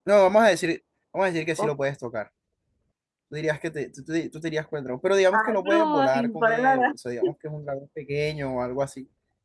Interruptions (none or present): present